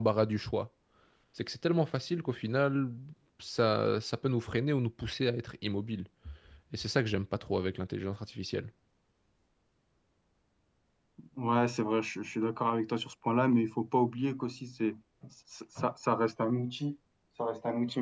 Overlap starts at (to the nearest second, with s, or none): none